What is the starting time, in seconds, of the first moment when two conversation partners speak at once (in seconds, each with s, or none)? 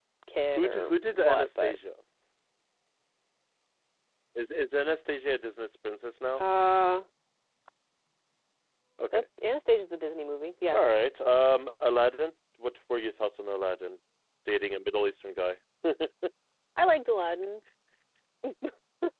0.6 s